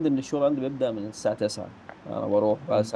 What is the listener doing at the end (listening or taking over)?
listening